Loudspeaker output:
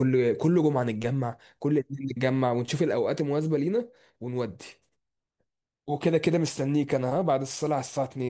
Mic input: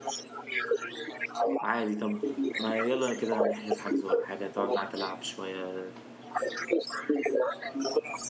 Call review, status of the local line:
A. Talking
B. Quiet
A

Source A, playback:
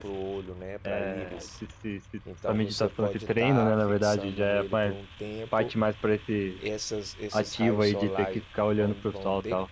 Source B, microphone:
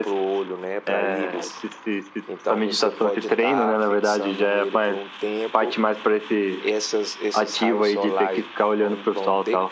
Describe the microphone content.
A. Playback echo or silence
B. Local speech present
A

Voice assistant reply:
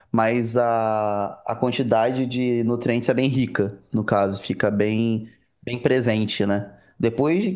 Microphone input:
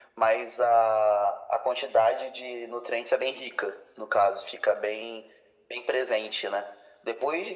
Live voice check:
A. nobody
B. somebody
A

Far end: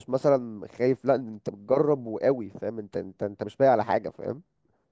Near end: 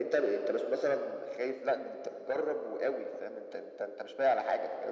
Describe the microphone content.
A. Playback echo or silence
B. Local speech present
A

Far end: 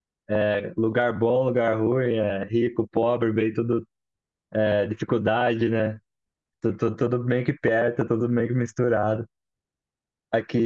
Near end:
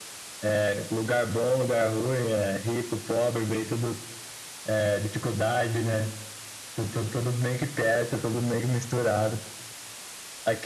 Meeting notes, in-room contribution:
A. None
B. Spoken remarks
A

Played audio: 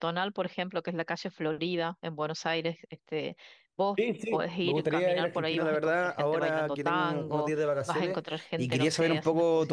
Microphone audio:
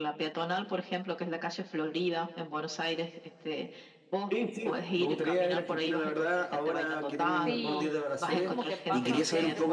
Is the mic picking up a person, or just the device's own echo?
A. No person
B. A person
B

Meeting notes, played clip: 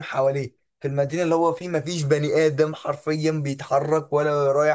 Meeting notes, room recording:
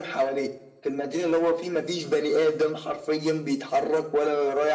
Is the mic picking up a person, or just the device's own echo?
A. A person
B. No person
B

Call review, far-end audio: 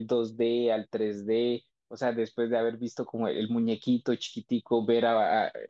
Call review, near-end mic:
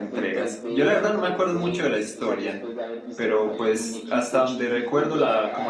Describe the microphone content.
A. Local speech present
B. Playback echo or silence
A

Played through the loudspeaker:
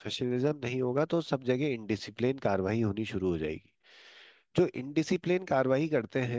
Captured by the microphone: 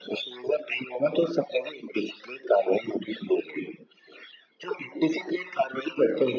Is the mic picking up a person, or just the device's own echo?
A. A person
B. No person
B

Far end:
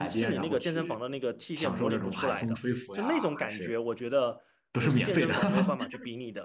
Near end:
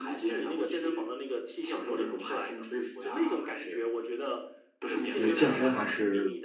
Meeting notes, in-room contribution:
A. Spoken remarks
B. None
A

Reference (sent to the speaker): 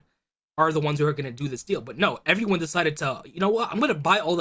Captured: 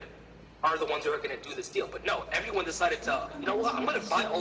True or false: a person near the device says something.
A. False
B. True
B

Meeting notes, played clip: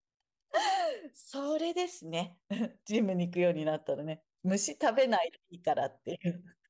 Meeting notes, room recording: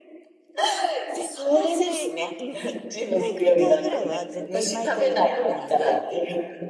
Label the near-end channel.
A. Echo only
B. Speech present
B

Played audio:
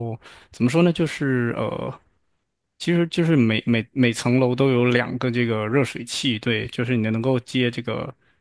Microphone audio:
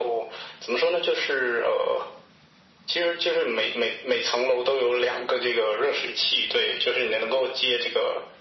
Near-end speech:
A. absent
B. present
A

